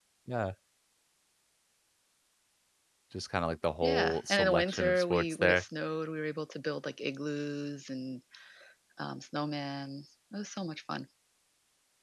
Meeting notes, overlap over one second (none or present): present